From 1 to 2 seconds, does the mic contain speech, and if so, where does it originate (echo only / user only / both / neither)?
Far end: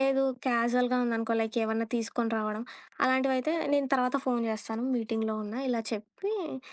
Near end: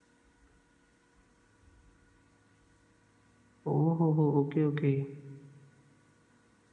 neither